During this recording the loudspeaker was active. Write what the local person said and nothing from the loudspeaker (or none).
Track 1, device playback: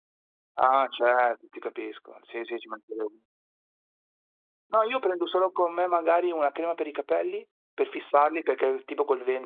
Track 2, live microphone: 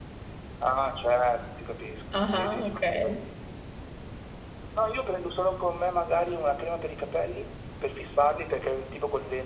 ah-ah, okay.